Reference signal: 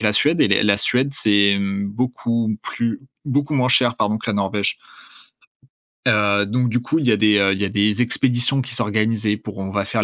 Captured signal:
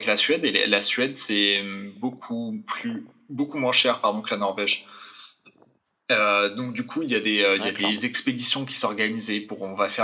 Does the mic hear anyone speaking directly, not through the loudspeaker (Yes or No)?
Yes